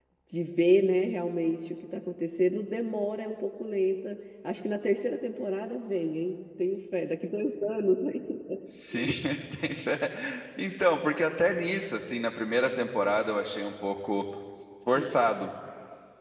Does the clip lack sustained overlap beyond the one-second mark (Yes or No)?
Yes